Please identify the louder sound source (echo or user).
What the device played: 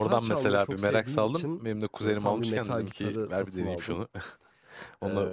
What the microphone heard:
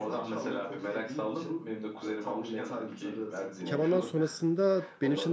user